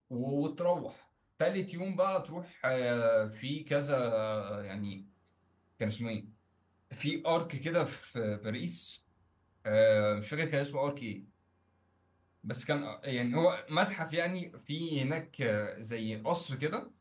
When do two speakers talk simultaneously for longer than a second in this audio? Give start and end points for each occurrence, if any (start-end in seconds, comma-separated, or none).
none